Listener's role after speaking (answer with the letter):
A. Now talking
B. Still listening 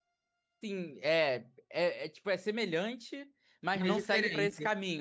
B